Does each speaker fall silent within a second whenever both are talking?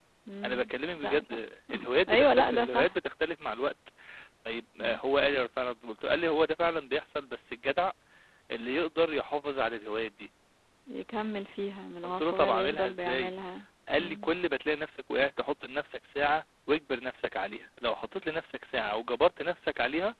No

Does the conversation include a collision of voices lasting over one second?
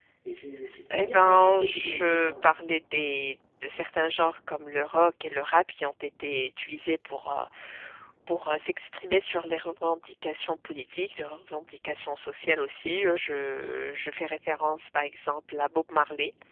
Yes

